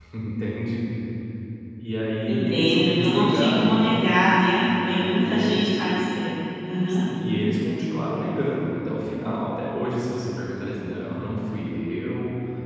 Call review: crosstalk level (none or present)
present